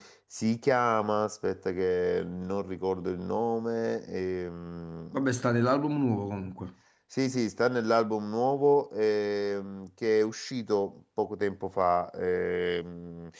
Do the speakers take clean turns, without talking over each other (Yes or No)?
Yes